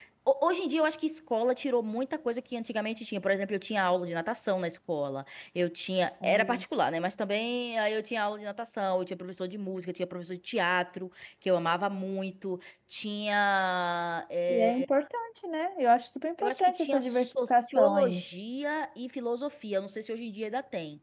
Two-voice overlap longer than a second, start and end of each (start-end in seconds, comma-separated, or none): 16.4-18.2